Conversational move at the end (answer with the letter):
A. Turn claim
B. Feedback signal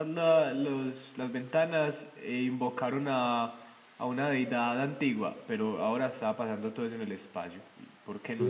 A